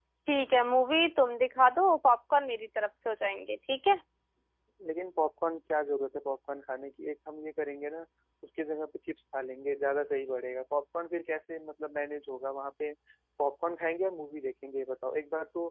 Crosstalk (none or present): none